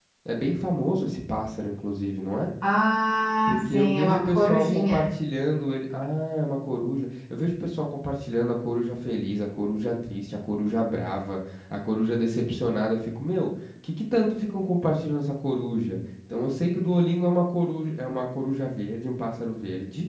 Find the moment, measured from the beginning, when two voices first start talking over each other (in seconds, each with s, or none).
3.5 s